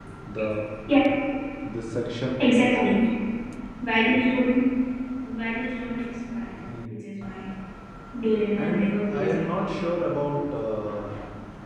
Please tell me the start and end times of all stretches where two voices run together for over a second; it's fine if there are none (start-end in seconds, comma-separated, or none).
8.6-10.0